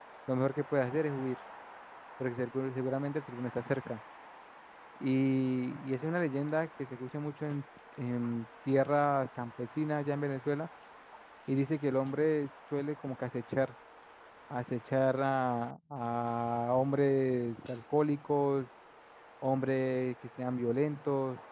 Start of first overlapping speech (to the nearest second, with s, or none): none